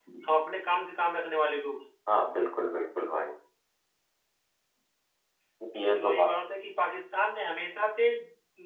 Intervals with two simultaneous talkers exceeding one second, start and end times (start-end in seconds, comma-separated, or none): none